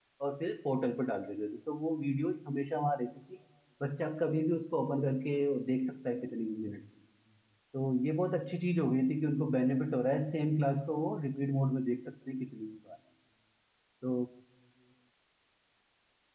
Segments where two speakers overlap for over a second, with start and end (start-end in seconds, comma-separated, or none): none